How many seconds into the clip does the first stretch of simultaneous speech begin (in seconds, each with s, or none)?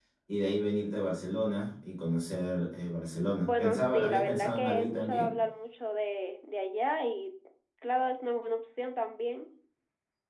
3.4 s